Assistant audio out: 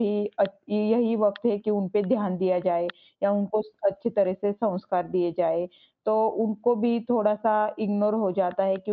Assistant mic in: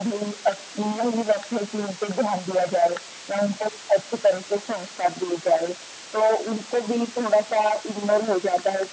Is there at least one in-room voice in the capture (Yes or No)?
No